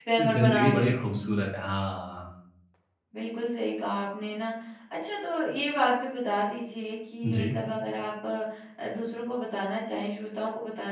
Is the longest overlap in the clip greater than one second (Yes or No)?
Yes